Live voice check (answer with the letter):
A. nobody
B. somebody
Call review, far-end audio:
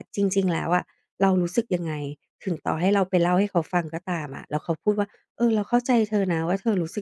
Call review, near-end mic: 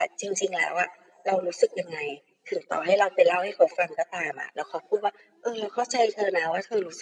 A